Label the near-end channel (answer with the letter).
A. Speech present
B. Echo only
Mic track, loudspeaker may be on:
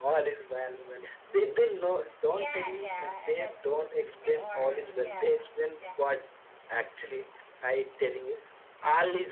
A